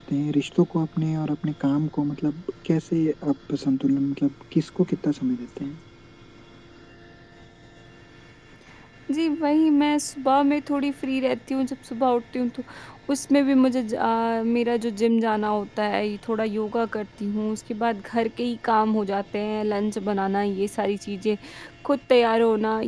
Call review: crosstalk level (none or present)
none